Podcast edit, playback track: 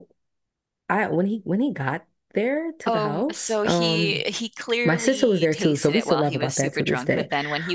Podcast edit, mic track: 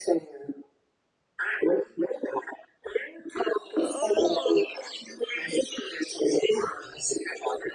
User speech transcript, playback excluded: Oh.

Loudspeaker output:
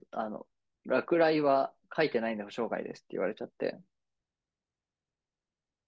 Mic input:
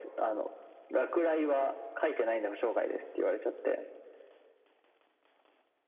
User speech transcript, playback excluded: none

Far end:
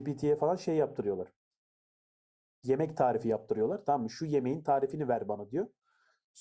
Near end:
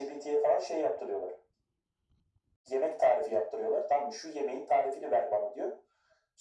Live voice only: none

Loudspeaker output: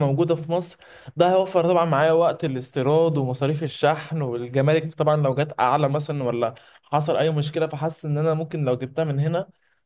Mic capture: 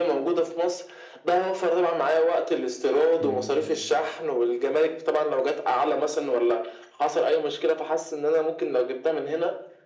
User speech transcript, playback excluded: امم

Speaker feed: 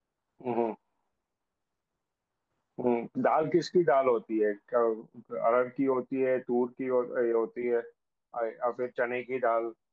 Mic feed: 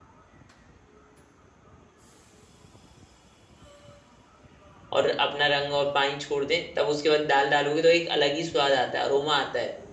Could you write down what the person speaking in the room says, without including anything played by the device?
और अपना रंग और पानी छोड़ दे तब उसके बाद दाल डालोगे तो एक अलग ही स्वाद आता है अरोमा आता है

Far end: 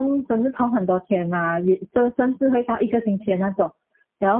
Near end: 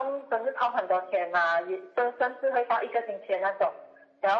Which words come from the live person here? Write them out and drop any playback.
none

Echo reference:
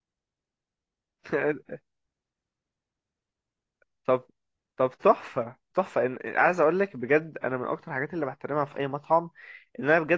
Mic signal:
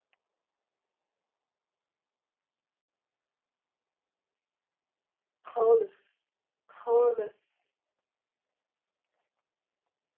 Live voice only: خالص خالص

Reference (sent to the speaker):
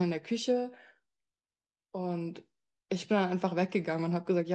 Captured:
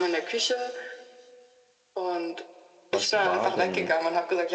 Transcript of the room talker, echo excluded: Was war denn

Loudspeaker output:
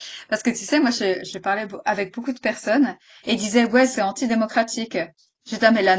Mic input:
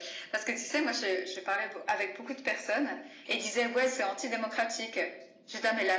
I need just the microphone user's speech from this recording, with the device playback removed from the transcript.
none

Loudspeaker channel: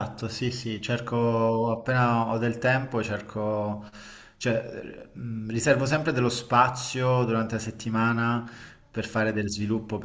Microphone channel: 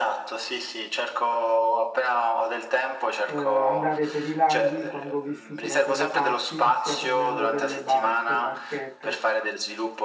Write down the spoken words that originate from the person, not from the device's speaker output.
eh, andare per i laghi quando ho vissuto da quelle parti, sia prendendo delle barche, barchette

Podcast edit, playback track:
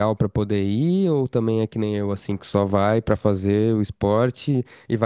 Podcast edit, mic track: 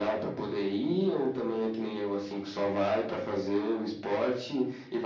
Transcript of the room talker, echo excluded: none

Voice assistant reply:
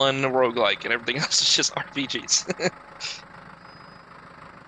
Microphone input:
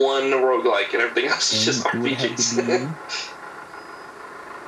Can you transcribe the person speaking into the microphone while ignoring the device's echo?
And it would have to be an

